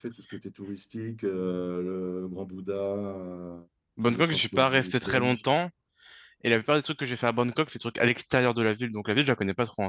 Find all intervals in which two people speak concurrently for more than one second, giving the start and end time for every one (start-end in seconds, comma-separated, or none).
4.1-5.4